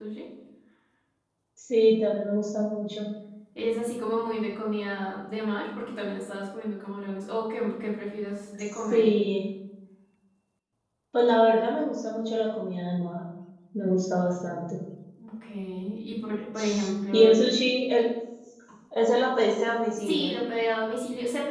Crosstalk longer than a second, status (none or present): none